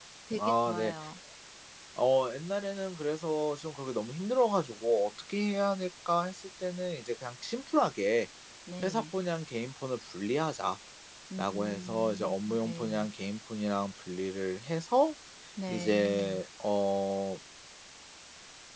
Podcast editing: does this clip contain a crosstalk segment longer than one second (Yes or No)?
Yes